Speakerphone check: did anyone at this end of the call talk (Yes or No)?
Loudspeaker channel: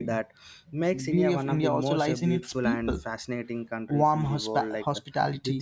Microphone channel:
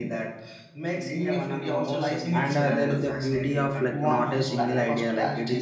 Yes